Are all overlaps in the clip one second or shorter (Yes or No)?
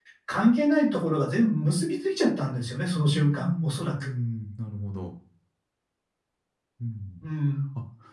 No